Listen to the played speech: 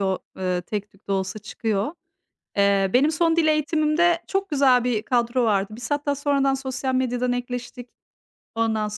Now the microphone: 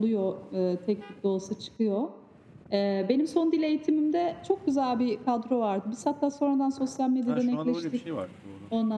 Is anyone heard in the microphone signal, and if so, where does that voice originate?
both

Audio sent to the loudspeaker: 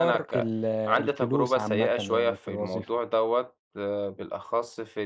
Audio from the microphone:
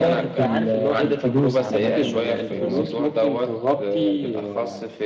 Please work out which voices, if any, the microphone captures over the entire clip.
both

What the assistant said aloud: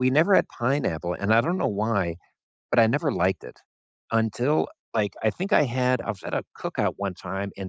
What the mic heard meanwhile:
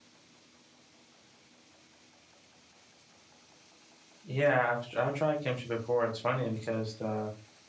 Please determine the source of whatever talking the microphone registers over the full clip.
user only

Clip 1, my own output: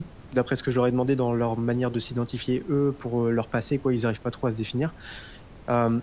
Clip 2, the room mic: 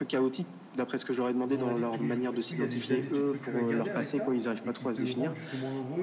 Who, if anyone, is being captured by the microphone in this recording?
both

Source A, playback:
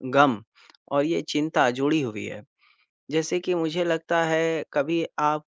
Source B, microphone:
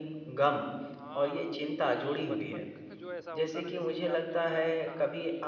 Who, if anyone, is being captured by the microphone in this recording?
both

